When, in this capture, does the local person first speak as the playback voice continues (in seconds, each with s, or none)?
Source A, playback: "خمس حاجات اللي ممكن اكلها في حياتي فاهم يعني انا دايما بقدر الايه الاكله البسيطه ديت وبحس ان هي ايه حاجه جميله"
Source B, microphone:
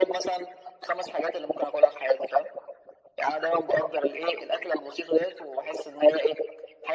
none